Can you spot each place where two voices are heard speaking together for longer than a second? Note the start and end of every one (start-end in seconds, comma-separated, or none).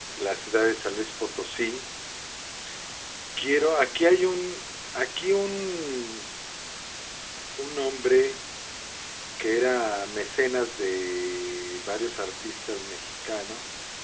none